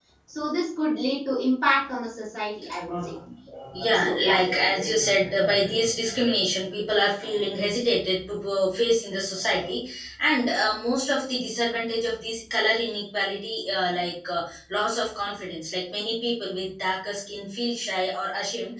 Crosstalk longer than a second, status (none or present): none